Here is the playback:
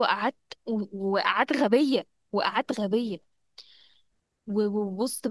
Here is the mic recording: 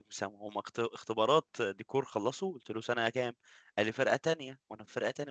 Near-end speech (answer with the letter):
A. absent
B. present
B